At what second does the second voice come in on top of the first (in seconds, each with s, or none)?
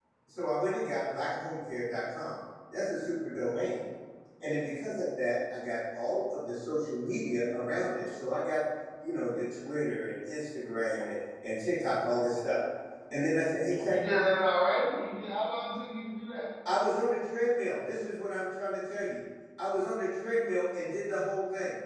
none